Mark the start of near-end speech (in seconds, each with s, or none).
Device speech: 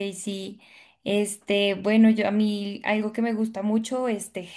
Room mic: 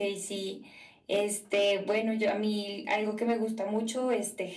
none